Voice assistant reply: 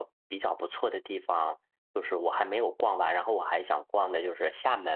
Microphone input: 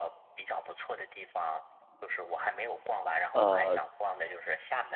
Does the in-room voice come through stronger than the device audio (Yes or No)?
Yes